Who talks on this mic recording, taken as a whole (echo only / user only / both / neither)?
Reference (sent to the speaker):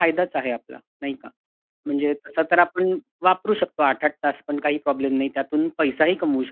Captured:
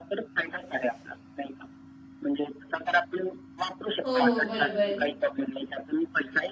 both